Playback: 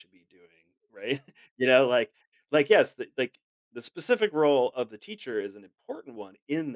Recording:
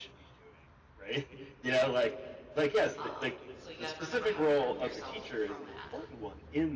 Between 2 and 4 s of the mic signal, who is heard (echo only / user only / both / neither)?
both